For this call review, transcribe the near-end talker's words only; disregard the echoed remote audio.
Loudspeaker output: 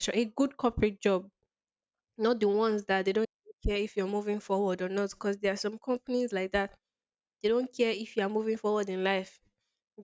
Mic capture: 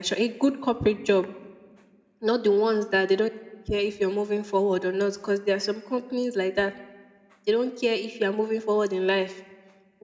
none

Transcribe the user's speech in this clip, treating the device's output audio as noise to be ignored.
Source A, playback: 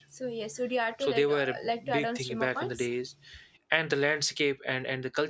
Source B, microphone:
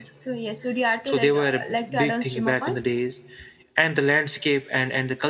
none

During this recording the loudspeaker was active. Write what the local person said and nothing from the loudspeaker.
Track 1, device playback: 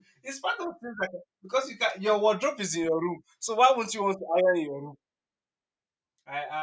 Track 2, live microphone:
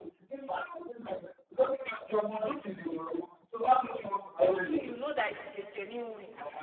You too you know that it is a genuine. win.

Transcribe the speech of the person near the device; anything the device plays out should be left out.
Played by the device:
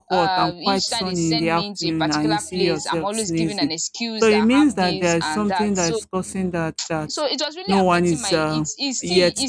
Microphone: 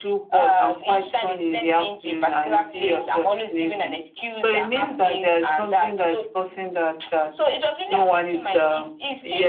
none

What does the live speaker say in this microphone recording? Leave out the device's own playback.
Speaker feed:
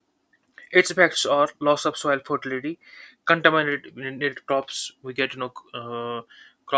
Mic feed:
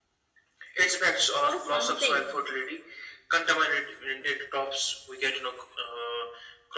or something.

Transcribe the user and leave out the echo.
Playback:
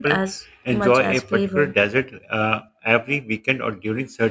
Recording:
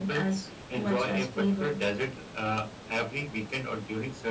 none

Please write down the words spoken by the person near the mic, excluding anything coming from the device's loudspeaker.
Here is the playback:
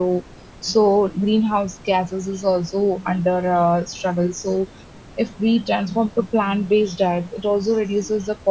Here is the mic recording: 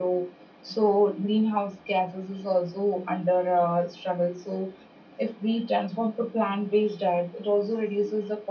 none

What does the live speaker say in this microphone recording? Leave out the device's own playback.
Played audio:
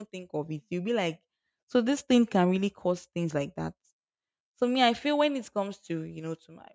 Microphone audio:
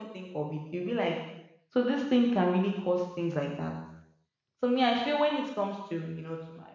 none

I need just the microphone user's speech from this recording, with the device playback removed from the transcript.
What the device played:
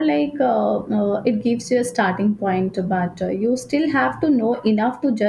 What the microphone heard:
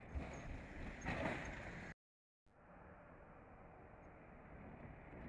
none

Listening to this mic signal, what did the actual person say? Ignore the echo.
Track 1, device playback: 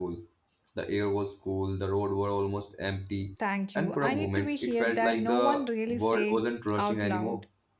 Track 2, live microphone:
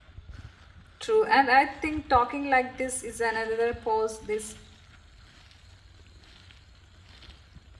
True, and I think talking like this is another pause. This

